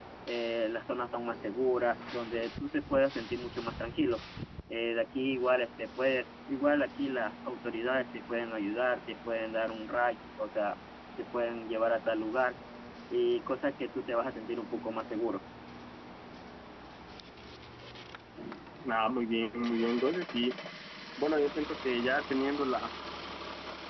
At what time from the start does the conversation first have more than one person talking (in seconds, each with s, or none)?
none